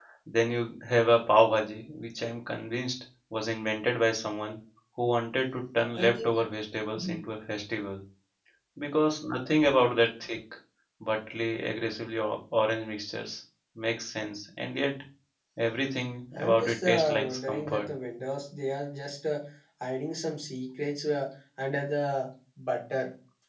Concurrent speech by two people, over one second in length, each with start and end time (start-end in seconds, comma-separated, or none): 16.4-17.9